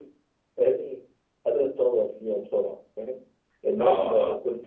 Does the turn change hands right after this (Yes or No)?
No